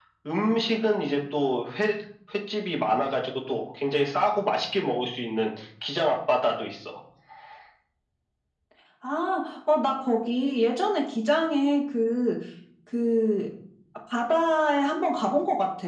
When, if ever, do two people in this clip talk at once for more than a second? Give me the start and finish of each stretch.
none

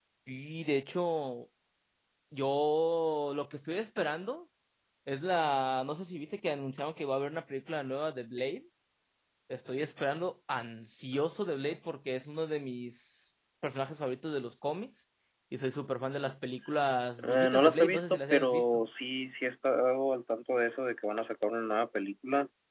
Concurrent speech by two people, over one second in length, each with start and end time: 17.2-18.6

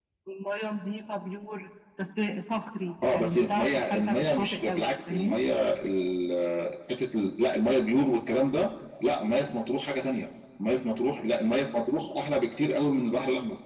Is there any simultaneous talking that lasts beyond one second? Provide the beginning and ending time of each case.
3.1-5.4

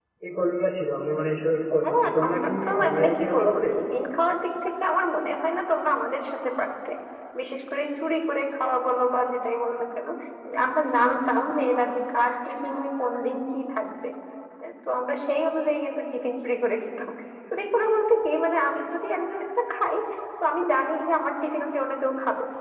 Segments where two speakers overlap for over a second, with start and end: 1.8-3.6

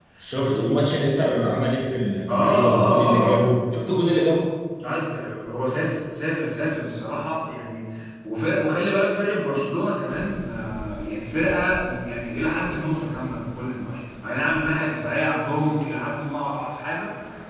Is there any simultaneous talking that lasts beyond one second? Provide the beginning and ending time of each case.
2.3-3.5

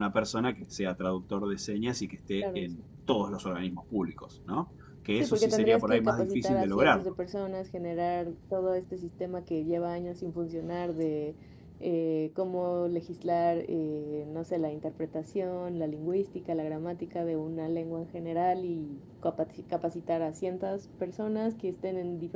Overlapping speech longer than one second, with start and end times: 5.2-7.0

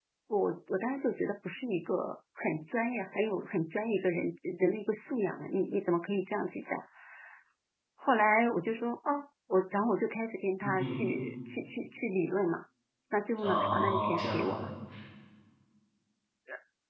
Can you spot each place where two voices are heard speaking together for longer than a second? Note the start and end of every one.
13.4-14.7

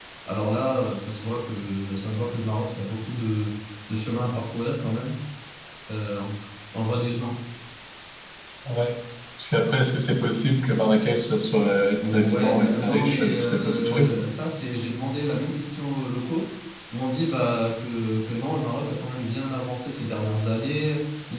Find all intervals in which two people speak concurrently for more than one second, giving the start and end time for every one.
12.0-14.2

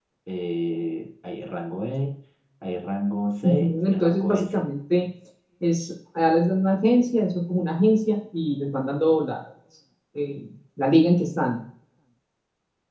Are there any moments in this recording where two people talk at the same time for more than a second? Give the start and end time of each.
3.4-4.7

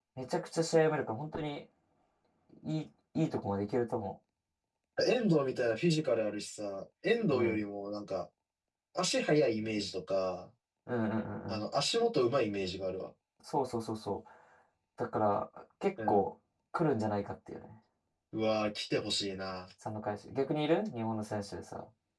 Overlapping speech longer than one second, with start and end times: none

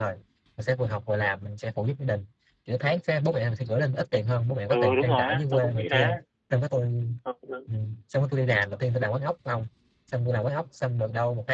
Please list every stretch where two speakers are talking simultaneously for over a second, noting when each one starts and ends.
4.7-6.1

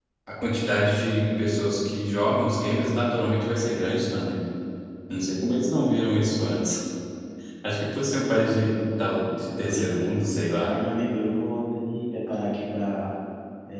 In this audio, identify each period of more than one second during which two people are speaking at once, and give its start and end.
none

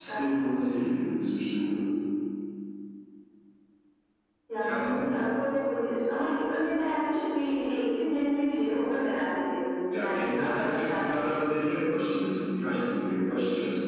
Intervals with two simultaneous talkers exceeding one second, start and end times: 9.9-11.3

